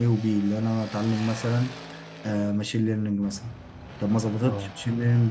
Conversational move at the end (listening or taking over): listening